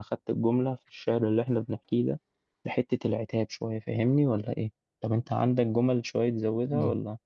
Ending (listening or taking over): taking over